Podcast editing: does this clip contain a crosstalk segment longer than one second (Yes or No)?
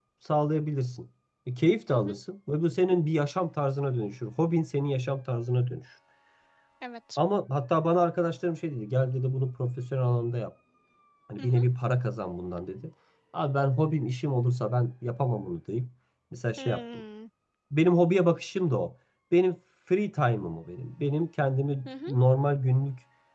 No